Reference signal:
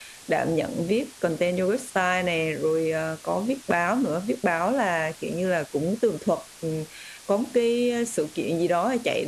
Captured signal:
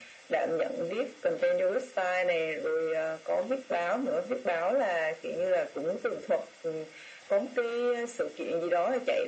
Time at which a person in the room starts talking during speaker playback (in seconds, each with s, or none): none